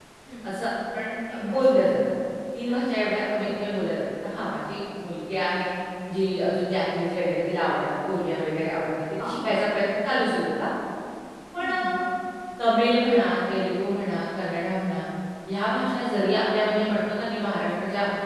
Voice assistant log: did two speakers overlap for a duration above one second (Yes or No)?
No